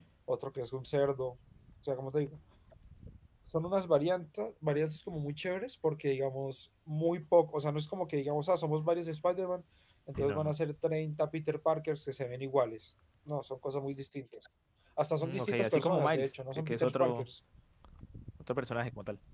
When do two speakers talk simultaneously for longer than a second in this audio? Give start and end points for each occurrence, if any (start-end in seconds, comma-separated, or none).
15.2-17.3